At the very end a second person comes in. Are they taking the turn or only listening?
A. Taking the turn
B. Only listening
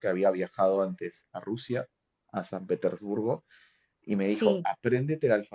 B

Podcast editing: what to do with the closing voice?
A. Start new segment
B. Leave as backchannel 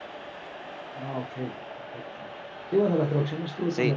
B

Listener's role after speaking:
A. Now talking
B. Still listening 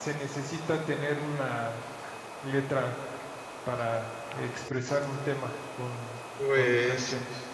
A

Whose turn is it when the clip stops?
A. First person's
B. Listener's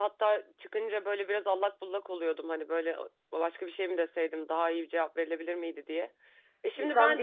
B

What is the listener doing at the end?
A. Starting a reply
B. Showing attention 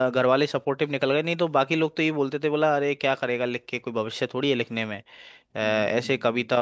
B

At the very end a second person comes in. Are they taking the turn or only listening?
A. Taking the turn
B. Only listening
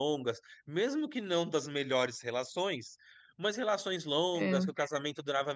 B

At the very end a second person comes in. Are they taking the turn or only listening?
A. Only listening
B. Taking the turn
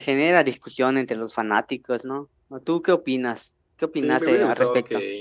B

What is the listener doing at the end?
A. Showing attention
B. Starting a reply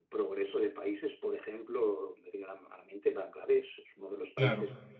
A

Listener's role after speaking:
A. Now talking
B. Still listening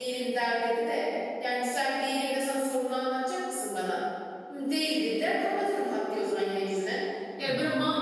B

